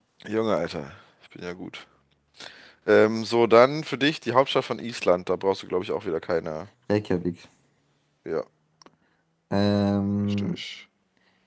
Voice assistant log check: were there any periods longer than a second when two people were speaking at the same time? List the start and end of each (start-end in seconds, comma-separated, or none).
none